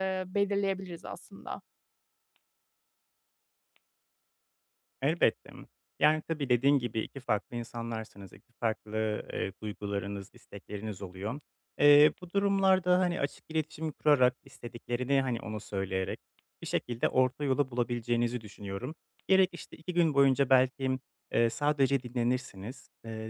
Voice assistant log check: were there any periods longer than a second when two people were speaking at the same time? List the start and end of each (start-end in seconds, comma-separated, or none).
none